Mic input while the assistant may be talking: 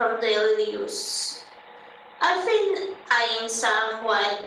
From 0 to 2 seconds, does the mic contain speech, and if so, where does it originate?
echo only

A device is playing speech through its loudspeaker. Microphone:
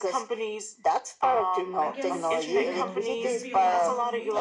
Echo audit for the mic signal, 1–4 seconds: both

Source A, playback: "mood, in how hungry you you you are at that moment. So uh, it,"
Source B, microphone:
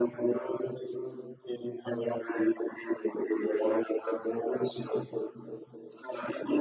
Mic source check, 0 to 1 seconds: echo only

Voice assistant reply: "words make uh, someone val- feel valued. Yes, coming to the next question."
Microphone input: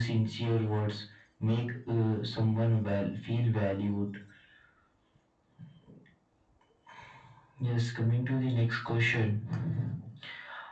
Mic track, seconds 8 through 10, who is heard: echo only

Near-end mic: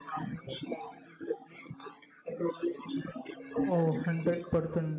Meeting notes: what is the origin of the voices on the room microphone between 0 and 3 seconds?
echo only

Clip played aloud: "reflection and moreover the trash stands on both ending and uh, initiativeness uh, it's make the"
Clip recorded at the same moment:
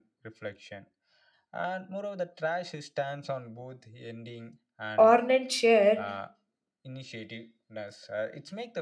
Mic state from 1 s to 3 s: echo only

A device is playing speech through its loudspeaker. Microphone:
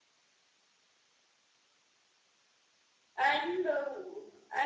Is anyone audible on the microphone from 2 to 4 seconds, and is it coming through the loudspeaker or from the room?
user only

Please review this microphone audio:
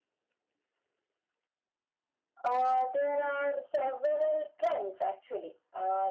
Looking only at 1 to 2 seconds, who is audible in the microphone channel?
neither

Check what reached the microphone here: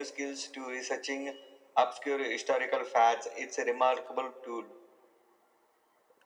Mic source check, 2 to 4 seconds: echo only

